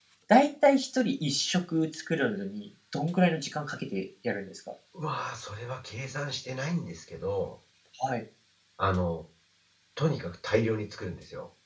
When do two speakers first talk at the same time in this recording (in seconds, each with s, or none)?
none